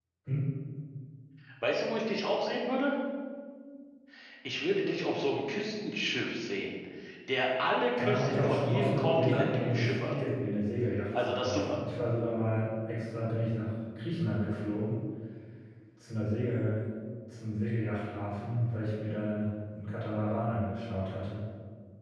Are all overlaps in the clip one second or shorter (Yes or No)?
No